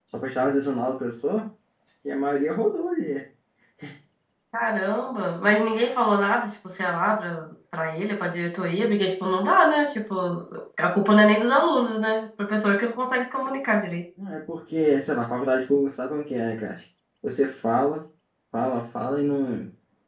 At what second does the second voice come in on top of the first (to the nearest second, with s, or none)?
none